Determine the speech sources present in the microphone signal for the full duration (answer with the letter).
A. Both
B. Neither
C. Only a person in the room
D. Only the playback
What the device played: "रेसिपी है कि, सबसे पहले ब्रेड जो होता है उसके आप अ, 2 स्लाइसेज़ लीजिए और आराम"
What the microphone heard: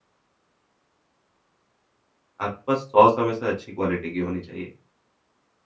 C